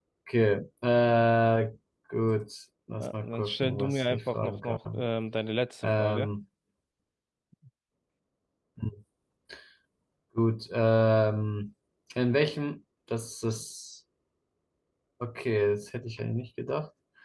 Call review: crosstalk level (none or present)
present